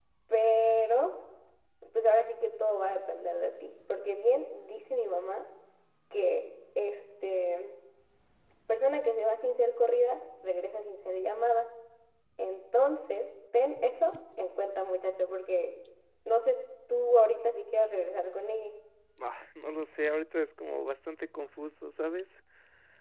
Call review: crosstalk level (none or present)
none